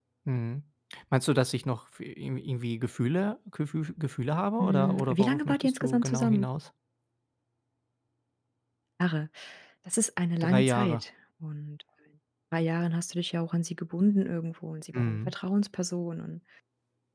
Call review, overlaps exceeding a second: present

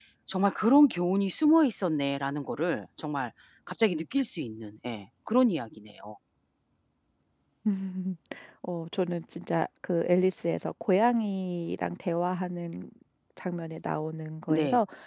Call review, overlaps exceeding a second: none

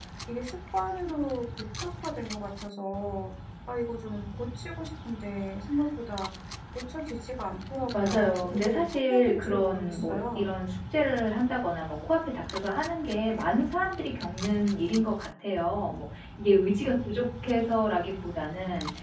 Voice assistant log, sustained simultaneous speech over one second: present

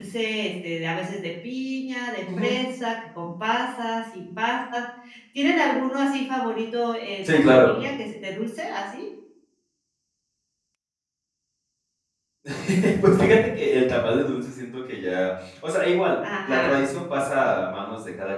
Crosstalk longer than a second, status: none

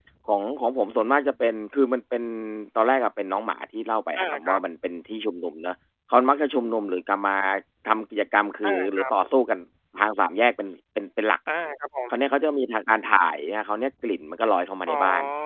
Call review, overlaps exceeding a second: none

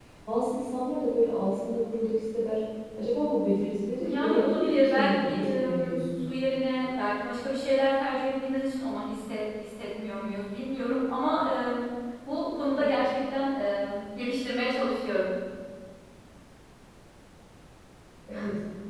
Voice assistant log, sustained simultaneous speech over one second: present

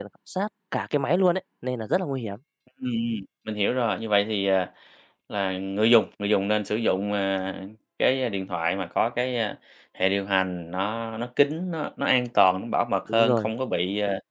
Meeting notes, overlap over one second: none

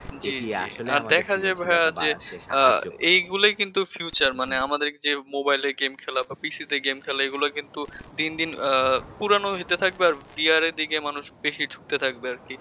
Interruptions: present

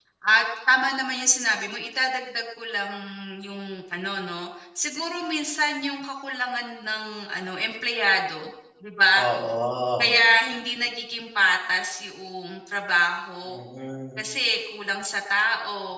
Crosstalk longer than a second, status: none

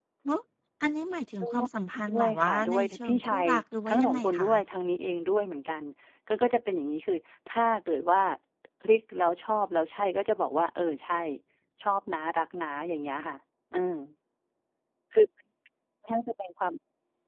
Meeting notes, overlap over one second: present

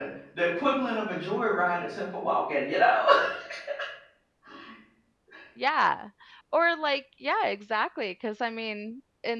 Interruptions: none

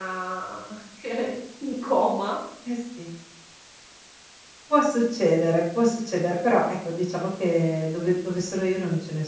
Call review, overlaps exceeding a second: none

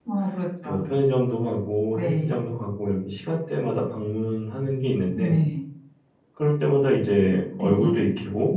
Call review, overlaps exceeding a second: none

